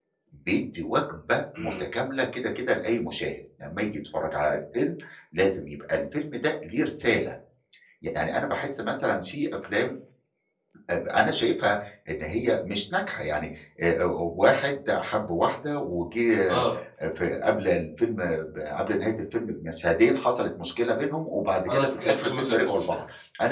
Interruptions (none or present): present